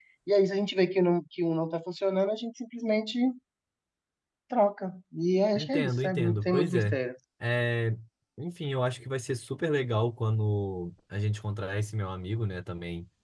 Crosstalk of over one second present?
Yes, from 5.6 s

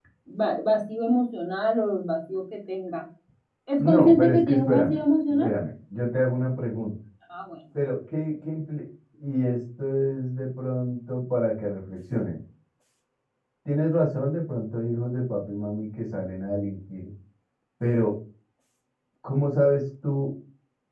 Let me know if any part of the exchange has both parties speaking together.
Yes, from 3.8 s

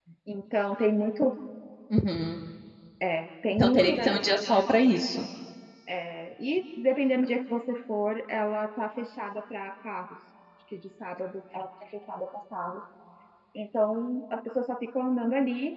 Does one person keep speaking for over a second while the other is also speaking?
Yes, from 3.5 s

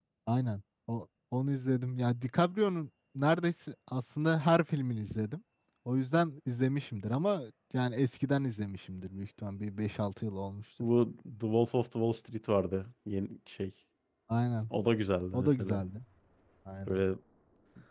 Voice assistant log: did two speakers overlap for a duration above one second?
No

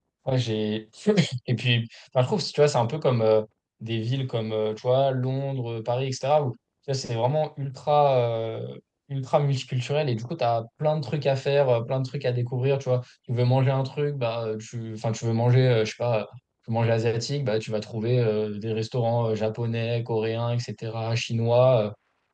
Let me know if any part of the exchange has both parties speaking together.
No

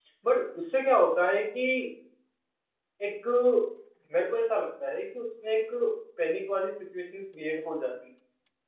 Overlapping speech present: No

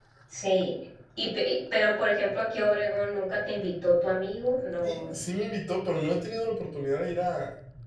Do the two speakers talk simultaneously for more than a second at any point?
No

